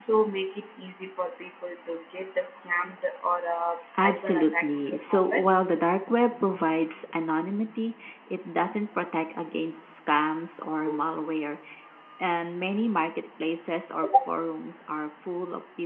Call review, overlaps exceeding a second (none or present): present